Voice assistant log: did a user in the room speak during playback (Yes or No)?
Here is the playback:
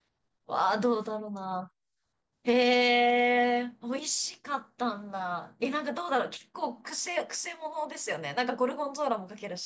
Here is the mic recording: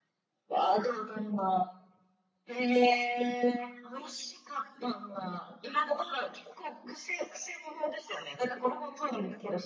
No